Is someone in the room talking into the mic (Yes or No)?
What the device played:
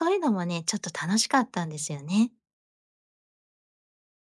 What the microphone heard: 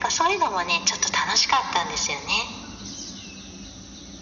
No